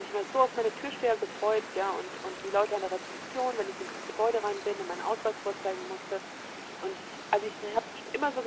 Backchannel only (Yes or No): Yes